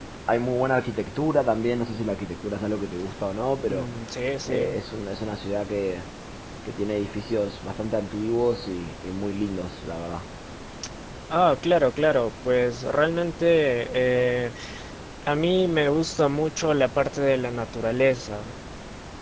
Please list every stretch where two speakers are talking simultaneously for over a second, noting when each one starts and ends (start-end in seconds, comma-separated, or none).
none